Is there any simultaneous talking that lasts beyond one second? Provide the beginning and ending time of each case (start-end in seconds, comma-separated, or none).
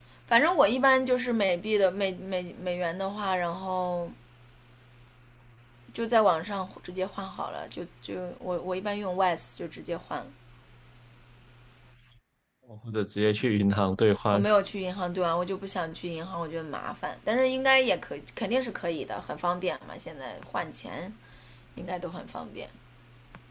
none